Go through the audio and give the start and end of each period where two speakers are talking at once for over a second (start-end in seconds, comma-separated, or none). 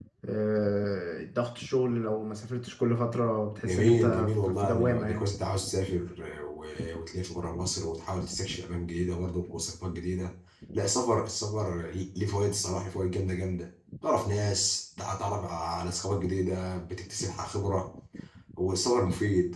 3.6-5.3